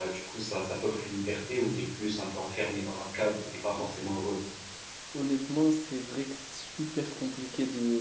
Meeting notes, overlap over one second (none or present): none